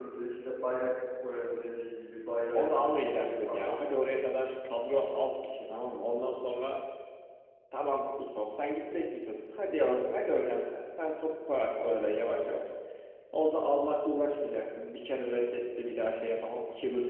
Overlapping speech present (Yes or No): Yes